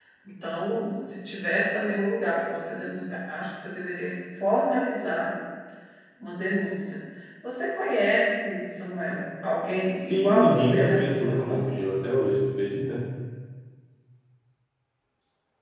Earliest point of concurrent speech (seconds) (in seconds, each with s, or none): 10.0 s